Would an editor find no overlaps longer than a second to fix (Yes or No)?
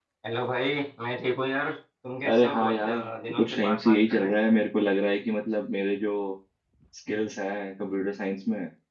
No